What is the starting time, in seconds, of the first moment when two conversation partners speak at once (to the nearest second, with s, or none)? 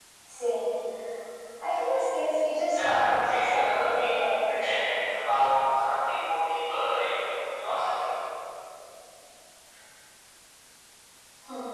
3 s